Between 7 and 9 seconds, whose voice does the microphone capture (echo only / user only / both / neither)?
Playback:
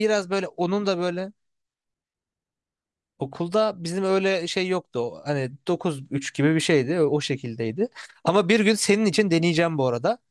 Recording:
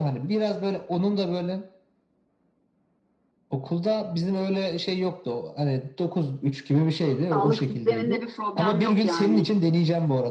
both